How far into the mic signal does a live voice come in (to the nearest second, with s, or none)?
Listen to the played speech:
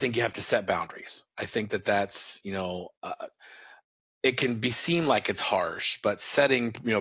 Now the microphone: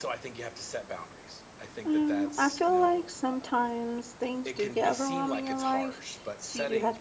2 s